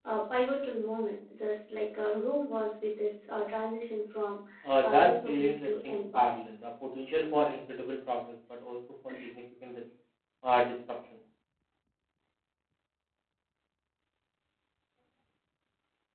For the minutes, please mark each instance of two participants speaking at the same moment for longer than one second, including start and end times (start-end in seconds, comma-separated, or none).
4.8-6.3